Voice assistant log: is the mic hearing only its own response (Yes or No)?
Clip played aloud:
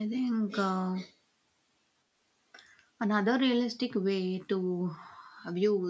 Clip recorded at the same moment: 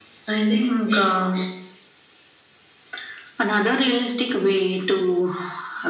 Yes